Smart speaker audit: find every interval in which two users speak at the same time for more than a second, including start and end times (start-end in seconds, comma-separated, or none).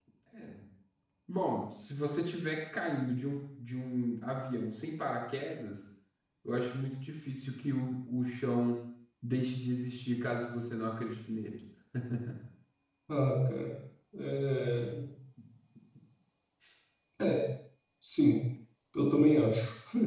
none